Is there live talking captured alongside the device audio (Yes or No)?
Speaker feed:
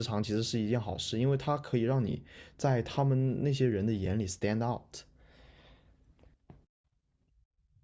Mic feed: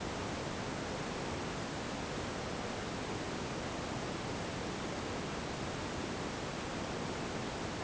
No